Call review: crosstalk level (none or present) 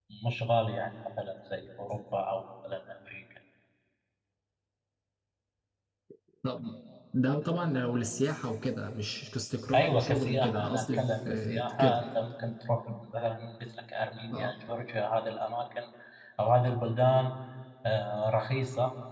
present